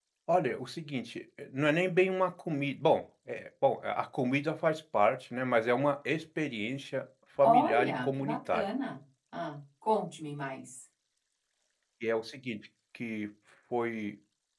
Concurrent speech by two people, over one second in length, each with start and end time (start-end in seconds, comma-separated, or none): 7.4-8.7